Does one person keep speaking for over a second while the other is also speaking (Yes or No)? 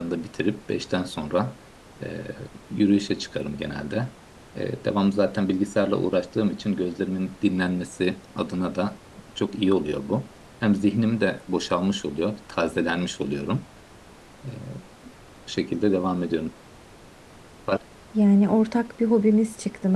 No